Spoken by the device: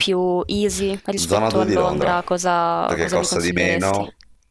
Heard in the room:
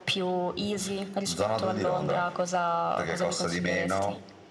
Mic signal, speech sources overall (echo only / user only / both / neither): echo only